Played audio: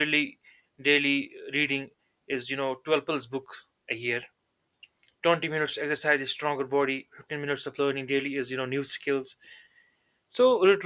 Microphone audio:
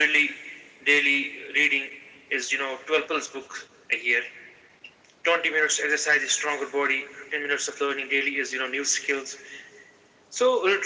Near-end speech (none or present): none